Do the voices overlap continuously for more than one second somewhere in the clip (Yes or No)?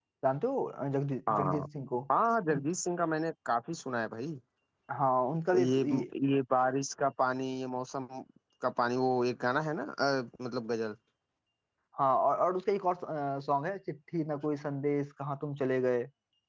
No